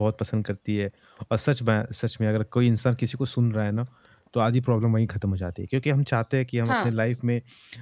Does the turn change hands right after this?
No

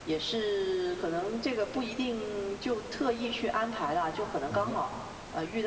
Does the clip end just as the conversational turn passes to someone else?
No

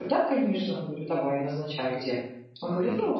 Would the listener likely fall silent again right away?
No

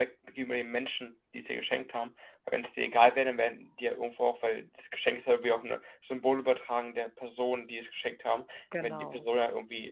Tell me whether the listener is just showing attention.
Yes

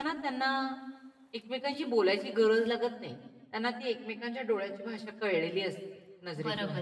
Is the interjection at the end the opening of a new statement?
Yes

